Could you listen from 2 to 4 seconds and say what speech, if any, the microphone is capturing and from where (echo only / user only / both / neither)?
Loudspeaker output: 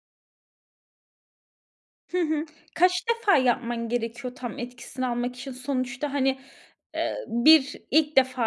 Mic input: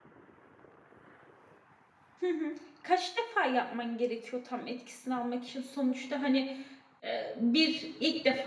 echo only